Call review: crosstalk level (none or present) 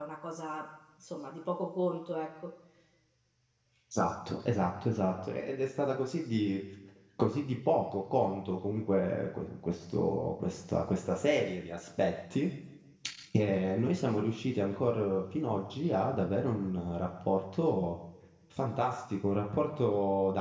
none